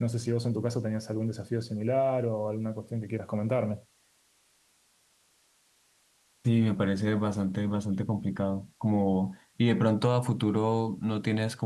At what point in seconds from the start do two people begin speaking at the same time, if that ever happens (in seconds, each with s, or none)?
none